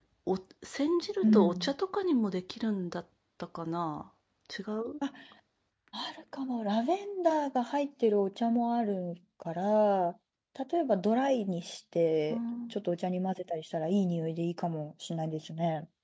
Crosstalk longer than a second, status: none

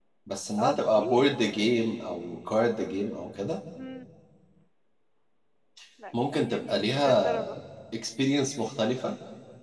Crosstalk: present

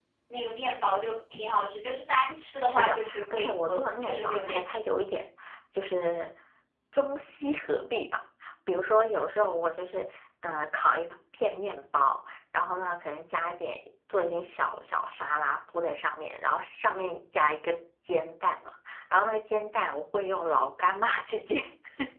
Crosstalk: present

